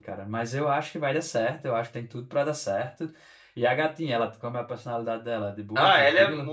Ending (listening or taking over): taking over